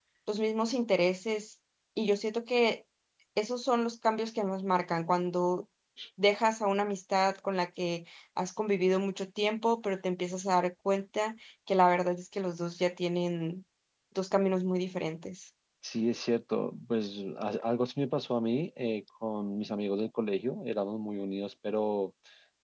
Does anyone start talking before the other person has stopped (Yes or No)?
No